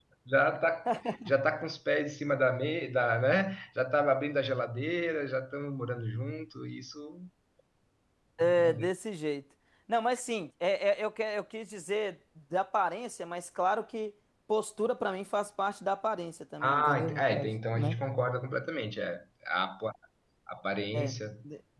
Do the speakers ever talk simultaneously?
Yes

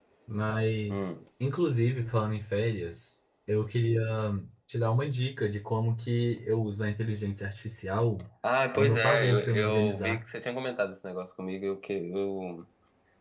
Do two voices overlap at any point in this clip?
Yes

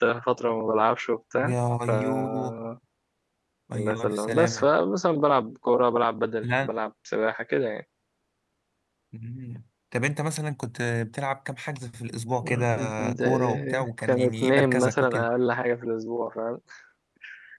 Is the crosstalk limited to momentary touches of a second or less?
No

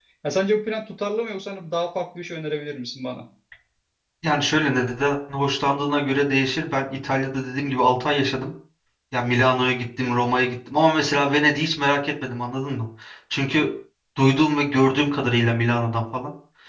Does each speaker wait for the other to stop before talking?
Yes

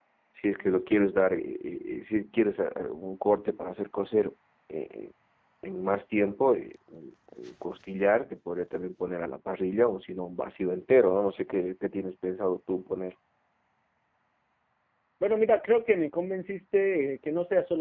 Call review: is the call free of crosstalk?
Yes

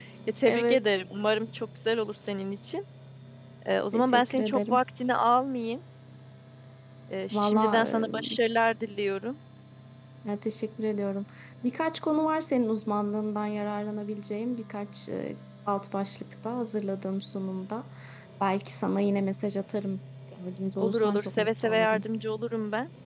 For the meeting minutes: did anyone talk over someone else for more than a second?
Yes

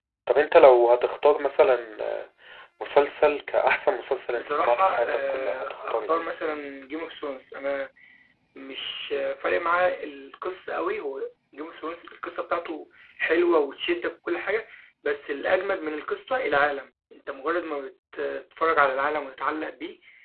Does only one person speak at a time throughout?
No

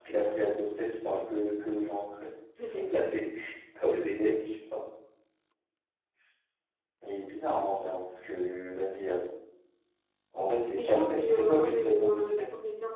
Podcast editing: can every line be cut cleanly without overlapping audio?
No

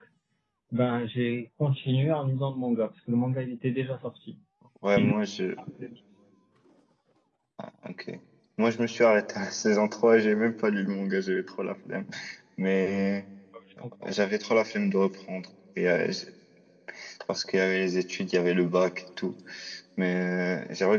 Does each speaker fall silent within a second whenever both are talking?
Yes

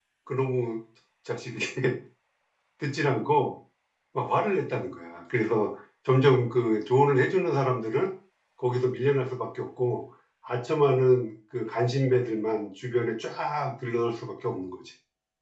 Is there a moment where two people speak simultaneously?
No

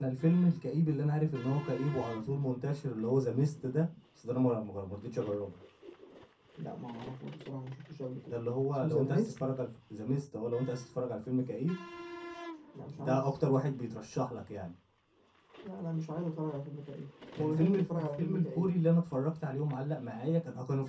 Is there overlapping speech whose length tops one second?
Yes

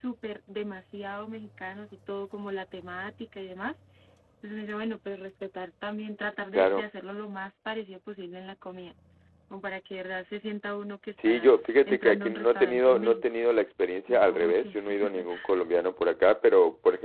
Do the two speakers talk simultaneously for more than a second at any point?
Yes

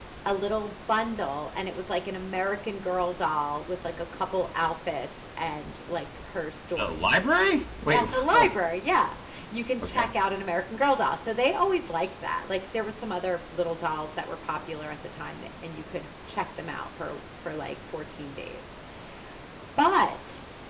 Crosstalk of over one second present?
No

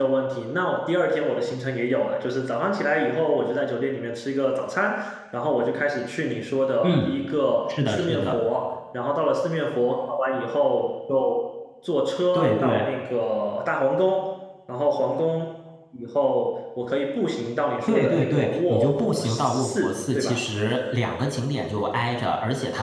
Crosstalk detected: Yes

